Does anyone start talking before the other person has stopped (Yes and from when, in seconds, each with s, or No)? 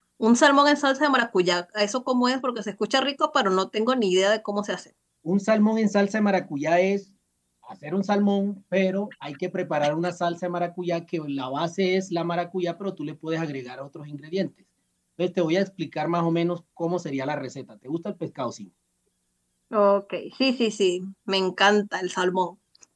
No